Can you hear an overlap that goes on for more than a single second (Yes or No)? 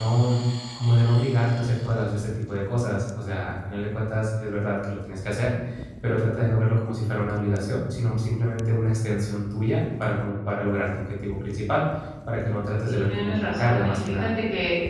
Yes